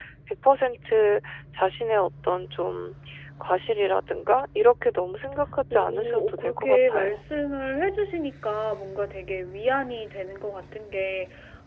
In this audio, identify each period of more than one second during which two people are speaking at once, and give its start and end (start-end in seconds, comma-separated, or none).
5.7-7.2